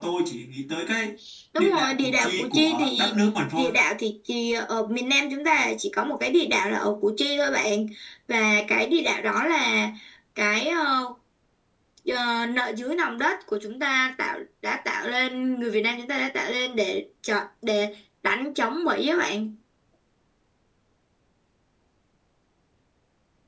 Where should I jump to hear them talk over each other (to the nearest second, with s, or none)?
2 s